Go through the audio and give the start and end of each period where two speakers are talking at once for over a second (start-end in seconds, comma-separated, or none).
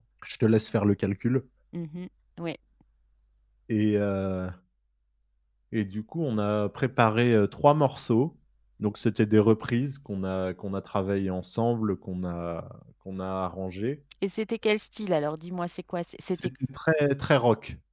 none